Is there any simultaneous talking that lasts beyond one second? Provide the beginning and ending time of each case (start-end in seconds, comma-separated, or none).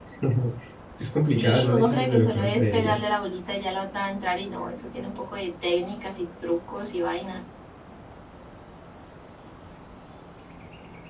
1.2-3.0